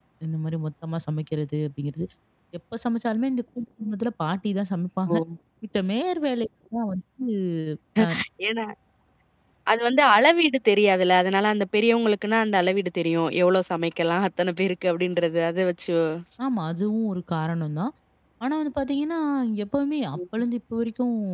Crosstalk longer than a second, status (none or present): none